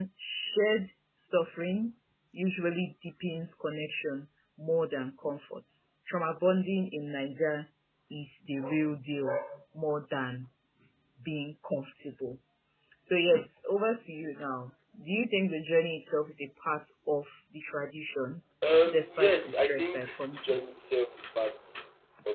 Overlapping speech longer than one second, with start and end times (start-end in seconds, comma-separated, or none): 18.9-20.7